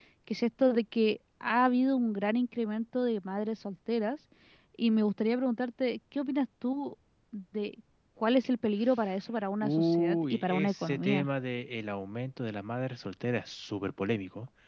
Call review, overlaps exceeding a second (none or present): present